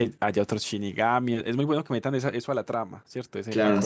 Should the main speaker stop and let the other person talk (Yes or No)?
Yes